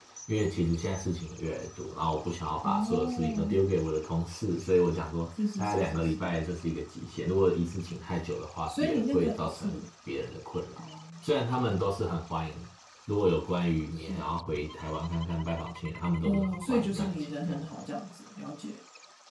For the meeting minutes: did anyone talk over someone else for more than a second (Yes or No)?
Yes